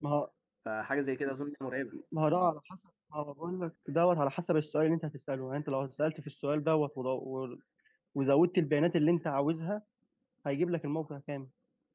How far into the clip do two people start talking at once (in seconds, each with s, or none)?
none